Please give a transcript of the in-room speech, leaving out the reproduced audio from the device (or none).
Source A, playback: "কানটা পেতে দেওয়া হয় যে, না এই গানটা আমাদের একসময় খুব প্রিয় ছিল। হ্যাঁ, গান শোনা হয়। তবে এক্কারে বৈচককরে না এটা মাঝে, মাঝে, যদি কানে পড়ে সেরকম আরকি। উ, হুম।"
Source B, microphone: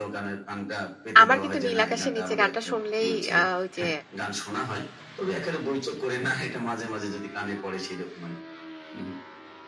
আমার কিন্তু নীল আকাশের নিচে গানটা শুনলেই অ্যা ওই যে,